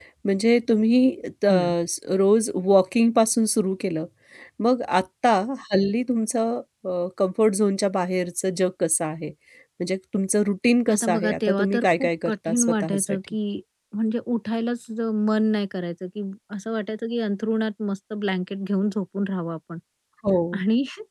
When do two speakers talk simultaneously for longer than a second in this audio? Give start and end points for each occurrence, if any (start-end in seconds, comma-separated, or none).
10.9-13.2